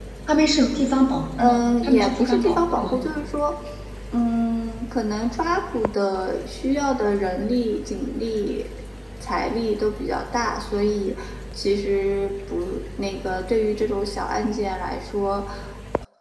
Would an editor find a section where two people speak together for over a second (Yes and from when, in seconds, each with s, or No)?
Yes, from 1.4 s